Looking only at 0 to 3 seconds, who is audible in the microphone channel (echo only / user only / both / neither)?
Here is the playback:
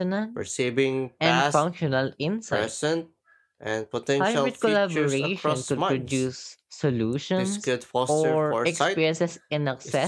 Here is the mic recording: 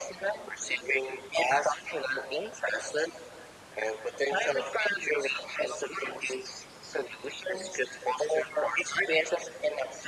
echo only